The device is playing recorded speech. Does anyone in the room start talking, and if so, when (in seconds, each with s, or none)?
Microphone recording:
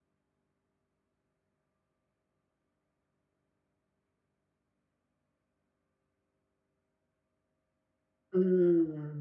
8.3 s